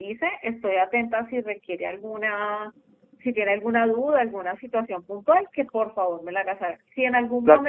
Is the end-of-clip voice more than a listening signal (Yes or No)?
No